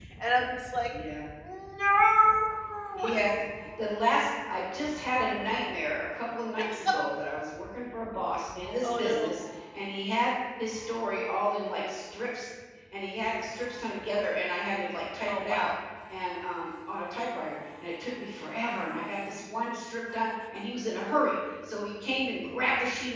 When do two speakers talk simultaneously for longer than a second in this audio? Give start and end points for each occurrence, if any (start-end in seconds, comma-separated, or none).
none